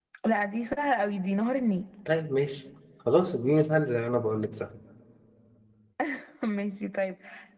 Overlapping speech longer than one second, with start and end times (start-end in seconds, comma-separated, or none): none